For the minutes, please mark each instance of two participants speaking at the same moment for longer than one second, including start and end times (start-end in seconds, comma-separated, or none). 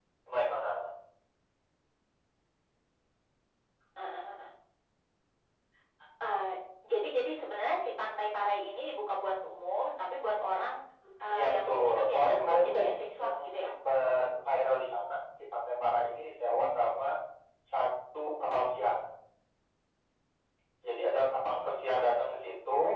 11.3-13.7